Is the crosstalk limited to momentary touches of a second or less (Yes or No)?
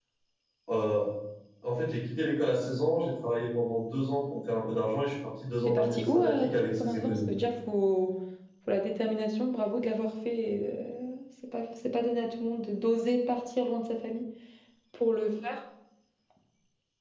No